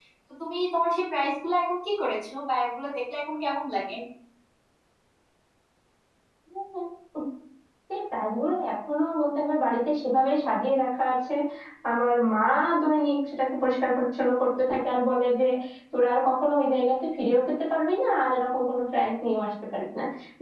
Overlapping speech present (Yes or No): No